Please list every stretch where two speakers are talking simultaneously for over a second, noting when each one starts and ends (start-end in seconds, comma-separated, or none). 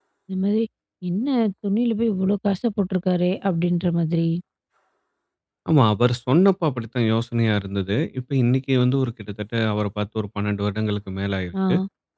none